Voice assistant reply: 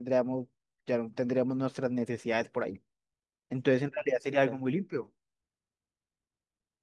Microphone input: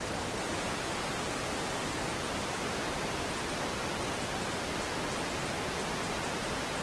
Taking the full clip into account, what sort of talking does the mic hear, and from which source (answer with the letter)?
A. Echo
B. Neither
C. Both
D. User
B